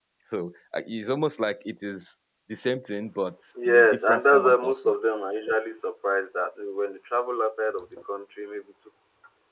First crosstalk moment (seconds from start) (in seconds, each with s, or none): 3.5 s